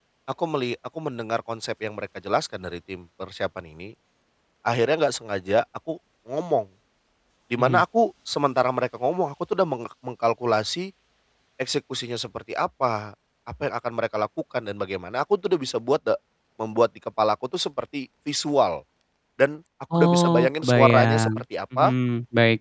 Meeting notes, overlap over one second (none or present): present